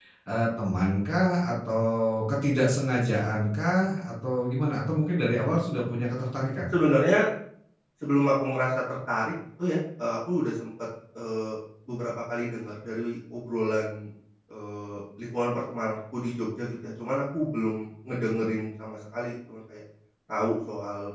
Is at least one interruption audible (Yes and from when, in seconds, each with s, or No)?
No